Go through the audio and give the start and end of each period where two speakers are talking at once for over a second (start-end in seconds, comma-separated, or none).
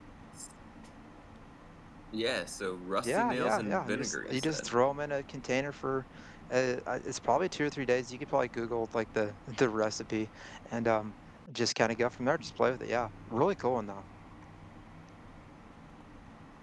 3.0-4.8